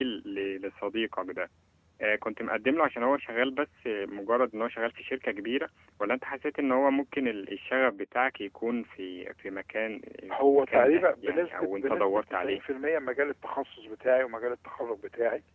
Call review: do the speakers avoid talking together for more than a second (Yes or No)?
No